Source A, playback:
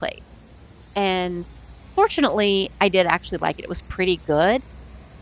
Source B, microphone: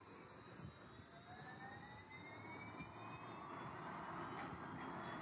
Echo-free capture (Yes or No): Yes